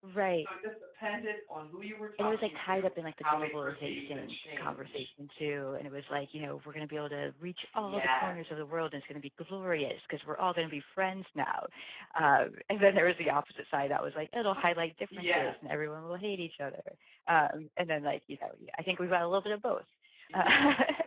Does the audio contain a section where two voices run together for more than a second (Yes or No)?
Yes